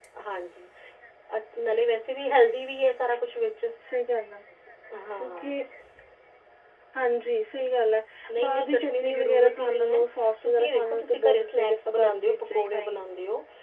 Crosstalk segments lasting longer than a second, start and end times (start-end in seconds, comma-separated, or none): 8.4-10.0, 10.4-13.0